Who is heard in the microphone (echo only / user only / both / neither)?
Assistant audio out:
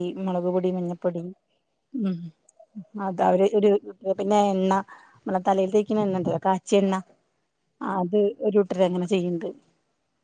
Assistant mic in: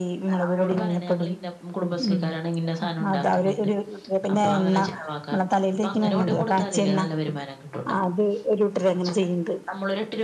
both